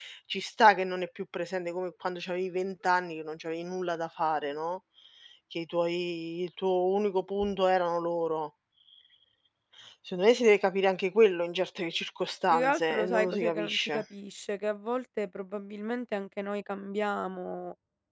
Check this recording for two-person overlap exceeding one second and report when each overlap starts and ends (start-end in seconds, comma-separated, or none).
12.5-14.0